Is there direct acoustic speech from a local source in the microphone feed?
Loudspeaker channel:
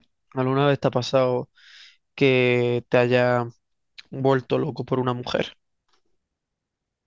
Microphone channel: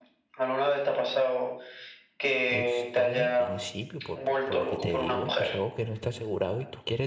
Yes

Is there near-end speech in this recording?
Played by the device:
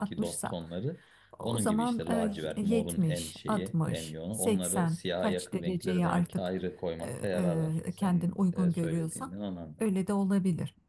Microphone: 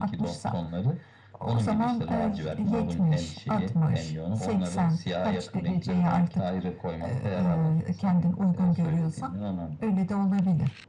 No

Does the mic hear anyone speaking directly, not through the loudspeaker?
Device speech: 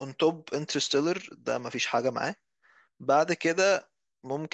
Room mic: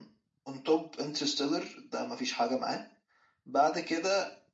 No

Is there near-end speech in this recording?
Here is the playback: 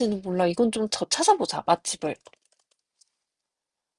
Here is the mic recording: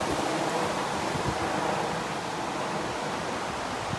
No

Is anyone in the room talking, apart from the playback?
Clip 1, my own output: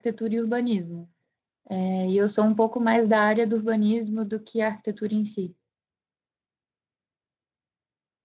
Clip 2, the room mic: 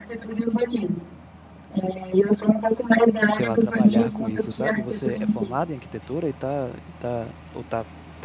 Yes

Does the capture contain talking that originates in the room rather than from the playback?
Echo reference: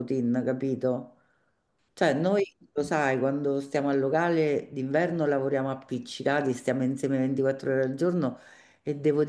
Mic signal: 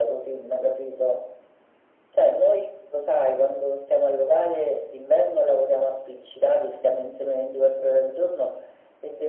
No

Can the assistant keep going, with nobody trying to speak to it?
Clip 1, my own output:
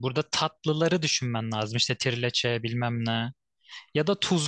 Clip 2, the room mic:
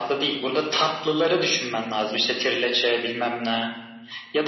Yes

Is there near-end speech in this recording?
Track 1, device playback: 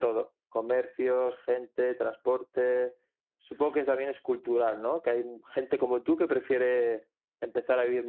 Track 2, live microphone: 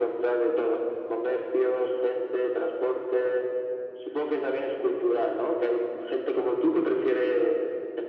No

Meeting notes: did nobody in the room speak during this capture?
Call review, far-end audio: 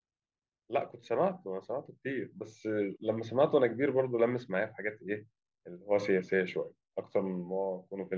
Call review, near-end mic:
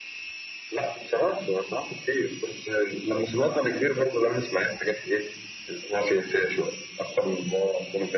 Yes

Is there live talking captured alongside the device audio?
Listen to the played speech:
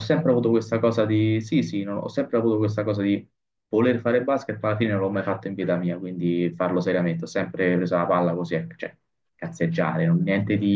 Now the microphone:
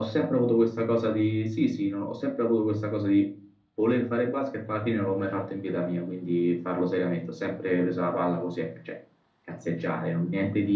No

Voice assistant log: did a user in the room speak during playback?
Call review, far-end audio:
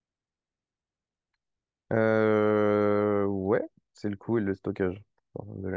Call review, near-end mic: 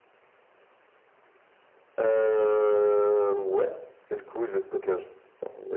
No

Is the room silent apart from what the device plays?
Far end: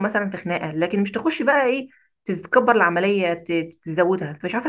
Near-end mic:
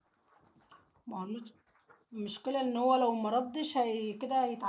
No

